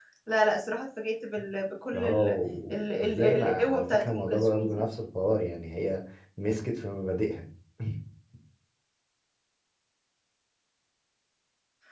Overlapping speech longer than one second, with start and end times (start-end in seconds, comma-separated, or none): 2.7-4.8